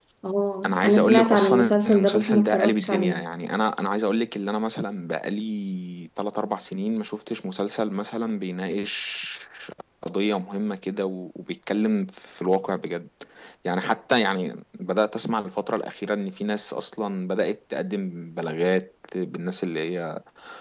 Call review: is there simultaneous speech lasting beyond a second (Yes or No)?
Yes